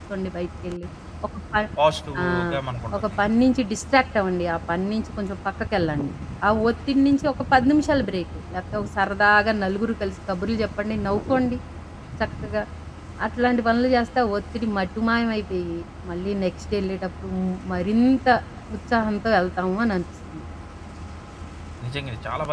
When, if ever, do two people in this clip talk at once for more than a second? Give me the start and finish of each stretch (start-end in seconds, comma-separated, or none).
none